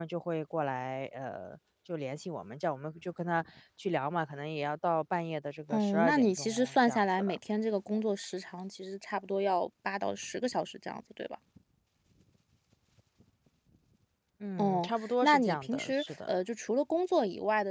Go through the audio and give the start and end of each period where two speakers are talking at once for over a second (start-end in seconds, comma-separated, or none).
5.7-7.4, 14.6-16.3